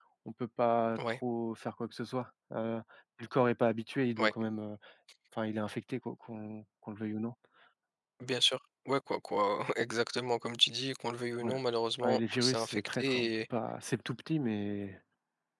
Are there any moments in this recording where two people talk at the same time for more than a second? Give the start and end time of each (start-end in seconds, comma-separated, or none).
12.0-13.3